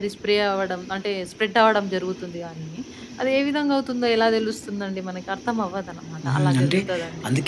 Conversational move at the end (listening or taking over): taking over